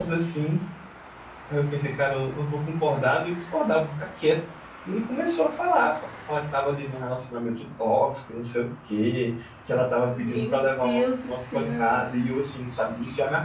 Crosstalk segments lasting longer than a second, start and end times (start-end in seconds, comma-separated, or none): 10.1-12.0